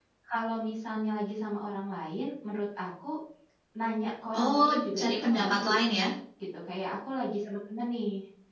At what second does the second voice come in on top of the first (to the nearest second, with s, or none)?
4 s